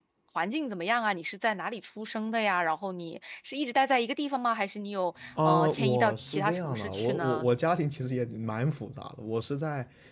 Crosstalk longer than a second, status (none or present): present